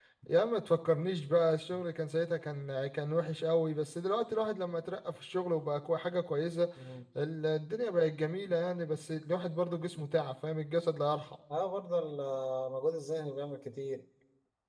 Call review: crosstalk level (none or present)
none